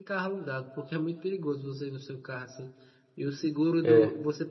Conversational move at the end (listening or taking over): listening